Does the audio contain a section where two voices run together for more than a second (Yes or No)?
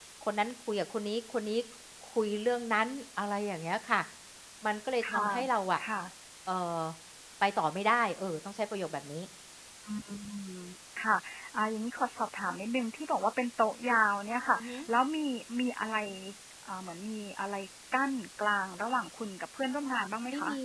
No